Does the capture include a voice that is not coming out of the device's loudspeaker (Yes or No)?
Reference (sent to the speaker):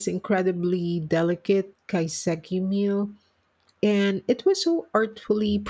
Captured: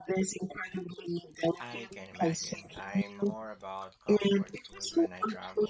Yes